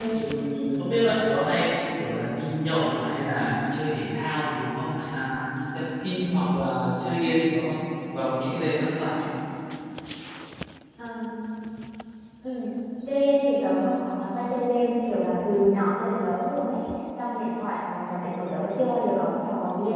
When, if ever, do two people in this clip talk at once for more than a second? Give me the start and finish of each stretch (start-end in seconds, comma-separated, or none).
none